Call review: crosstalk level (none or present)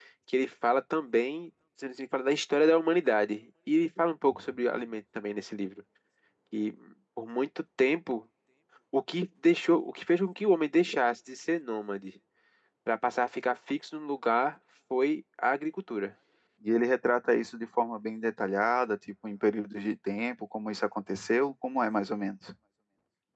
none